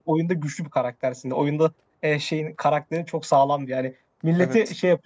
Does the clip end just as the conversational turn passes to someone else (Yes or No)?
No